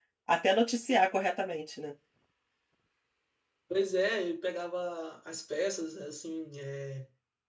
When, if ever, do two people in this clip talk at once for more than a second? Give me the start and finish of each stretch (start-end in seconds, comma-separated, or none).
none